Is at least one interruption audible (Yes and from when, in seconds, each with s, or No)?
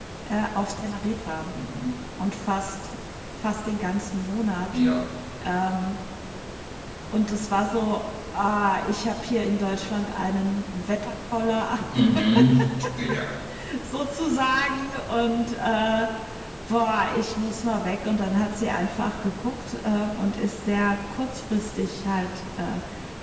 No